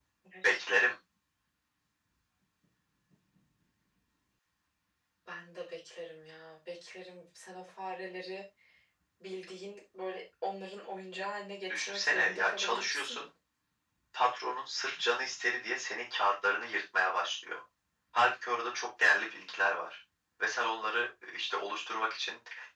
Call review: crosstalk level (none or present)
present